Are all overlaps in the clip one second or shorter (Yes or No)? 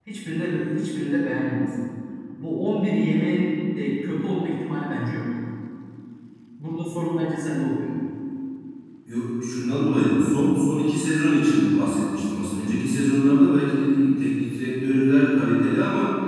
Yes